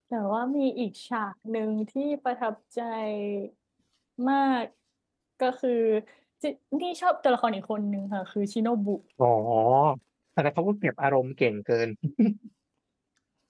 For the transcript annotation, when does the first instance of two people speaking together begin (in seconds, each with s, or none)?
none